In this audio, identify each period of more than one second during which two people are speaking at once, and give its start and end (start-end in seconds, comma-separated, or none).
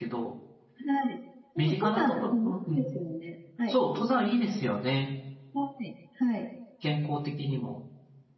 1.6-2.8